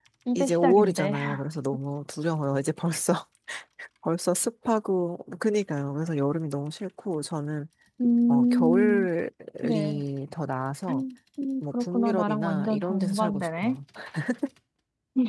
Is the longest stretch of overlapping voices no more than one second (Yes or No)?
No